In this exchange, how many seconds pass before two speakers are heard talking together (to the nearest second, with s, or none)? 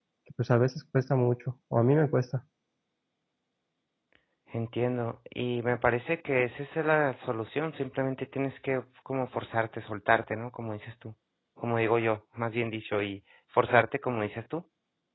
none